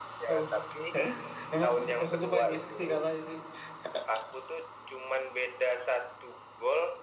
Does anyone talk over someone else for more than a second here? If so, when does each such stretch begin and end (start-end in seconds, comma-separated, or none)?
1.5-2.8